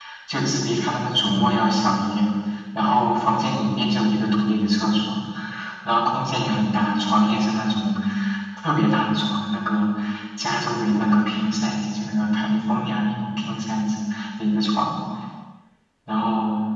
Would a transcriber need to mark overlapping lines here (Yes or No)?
No